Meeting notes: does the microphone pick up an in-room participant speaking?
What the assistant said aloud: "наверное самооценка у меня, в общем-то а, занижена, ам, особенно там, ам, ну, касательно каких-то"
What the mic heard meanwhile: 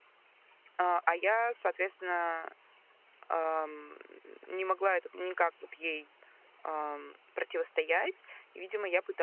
Yes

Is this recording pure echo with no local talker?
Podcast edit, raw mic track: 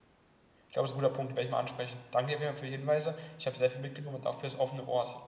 No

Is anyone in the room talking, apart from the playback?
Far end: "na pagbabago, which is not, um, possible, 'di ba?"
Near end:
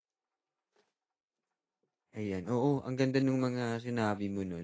Yes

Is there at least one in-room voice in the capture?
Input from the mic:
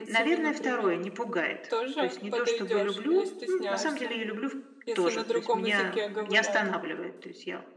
Yes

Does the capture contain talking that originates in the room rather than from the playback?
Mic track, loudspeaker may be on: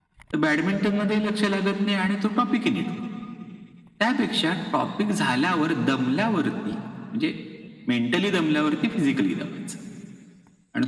No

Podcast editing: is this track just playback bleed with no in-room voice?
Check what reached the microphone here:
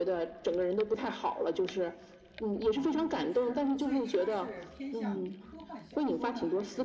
No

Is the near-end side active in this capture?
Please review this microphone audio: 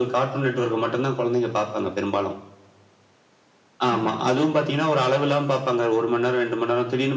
Yes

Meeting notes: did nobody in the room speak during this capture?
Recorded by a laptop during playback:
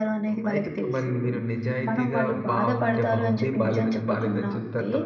No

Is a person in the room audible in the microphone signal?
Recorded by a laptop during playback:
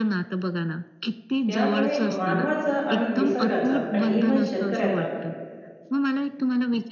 Yes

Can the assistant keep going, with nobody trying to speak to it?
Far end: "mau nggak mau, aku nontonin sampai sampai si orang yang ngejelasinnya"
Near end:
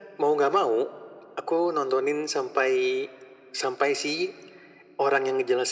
Yes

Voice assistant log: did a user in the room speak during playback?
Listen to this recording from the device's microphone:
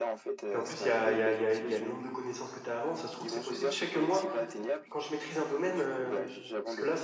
Yes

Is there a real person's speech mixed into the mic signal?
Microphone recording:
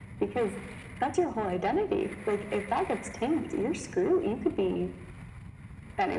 No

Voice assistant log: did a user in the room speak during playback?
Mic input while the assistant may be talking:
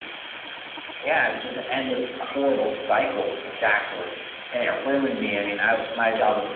No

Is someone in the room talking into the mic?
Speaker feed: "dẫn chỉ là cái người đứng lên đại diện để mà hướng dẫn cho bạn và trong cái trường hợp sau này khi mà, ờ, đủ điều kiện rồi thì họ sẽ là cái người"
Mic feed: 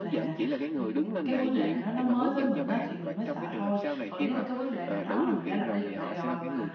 Yes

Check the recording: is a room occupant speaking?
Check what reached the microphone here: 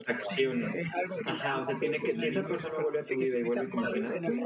Yes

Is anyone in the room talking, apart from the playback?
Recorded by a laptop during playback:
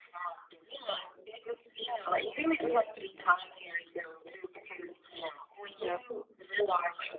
Yes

